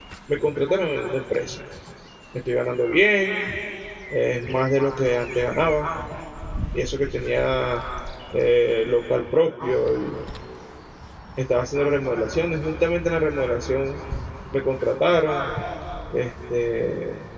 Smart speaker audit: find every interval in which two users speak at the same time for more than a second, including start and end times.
none

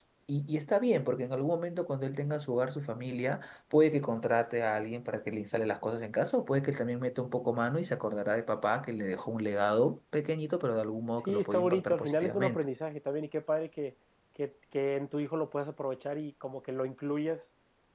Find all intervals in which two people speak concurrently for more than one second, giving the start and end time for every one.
11.3-12.6

